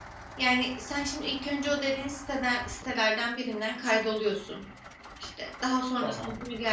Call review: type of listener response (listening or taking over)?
listening